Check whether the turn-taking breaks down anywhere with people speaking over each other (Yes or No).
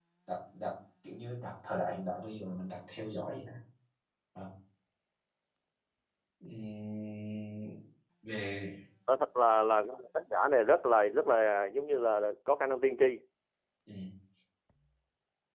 No